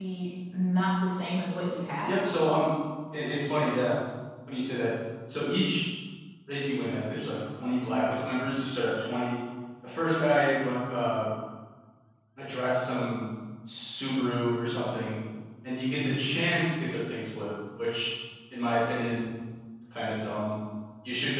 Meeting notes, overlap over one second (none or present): none